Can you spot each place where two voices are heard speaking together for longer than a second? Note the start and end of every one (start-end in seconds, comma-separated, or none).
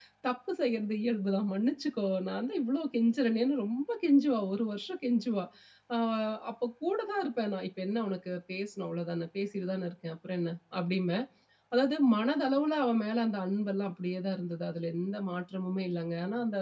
none